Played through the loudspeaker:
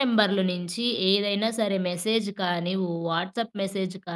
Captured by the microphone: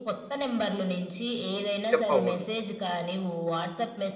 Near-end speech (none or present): present